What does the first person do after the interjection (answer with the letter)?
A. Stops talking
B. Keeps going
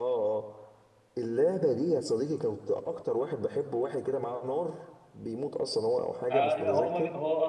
A